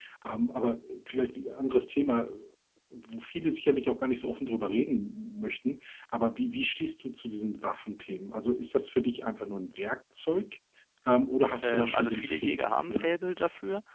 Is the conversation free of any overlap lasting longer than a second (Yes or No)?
No